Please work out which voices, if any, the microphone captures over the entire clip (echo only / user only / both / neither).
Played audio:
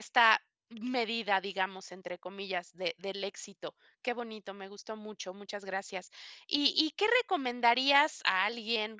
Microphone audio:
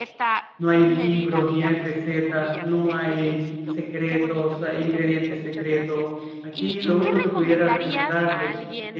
both